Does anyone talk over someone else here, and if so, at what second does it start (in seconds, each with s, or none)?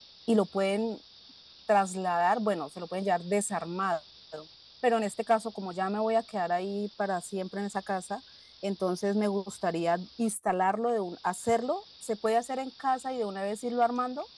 none